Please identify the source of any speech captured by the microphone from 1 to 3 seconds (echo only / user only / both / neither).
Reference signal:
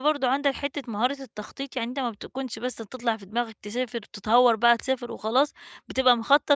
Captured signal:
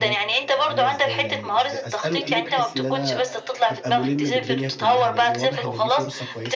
both